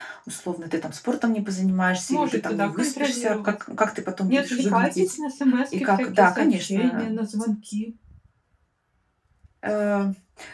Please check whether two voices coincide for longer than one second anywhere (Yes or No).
Yes